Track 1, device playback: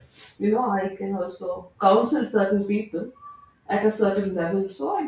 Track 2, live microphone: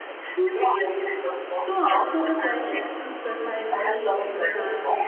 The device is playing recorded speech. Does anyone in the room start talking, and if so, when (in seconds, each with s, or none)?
0.4 s